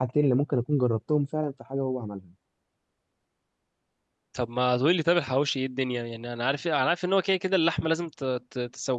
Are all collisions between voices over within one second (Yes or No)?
Yes